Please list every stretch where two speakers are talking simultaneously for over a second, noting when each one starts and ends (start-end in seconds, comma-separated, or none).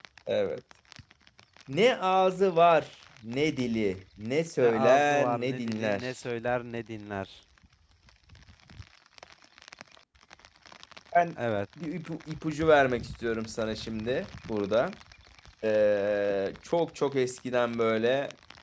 4.6-6.1